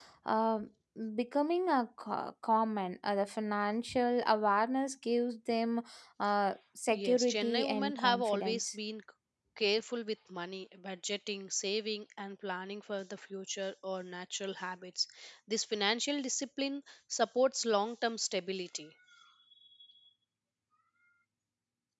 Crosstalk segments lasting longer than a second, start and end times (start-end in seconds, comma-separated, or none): 6.9-8.8